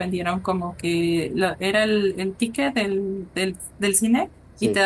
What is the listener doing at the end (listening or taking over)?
listening